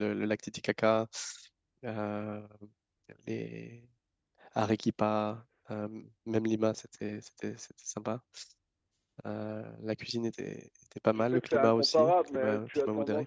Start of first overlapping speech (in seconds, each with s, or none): 11.1 s